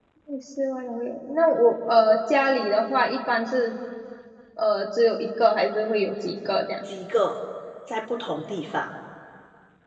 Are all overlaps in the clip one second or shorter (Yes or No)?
Yes